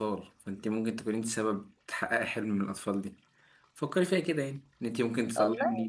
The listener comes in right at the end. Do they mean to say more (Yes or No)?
No